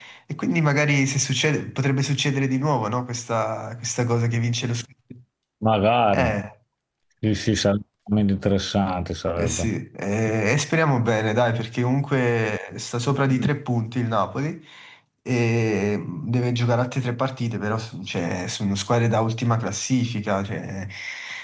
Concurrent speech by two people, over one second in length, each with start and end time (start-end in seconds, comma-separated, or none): none